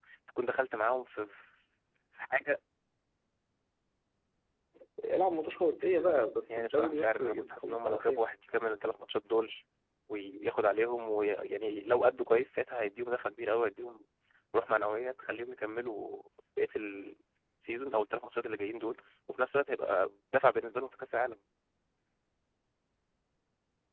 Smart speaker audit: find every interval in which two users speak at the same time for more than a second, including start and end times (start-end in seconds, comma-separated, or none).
6.5-8.2